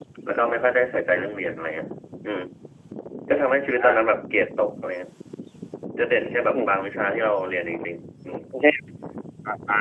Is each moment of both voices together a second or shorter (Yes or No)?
Yes